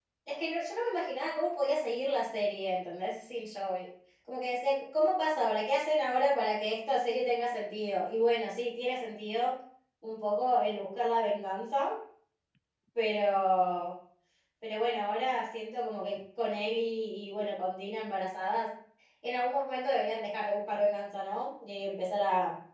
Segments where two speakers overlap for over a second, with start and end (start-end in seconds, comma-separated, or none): none